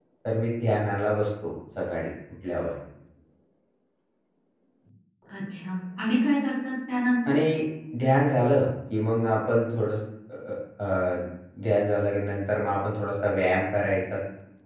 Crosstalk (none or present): none